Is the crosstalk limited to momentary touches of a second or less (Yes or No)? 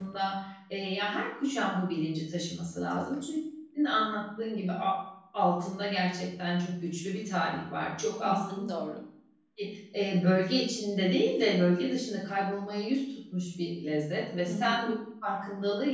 Yes